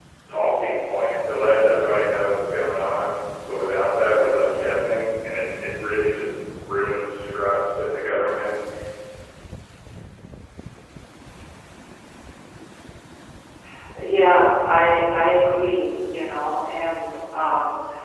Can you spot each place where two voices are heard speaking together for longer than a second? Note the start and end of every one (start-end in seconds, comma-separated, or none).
none